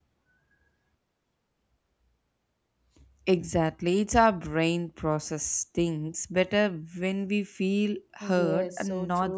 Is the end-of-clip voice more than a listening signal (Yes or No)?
Yes